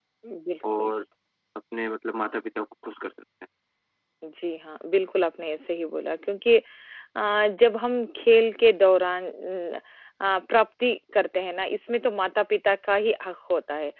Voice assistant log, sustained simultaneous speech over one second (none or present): none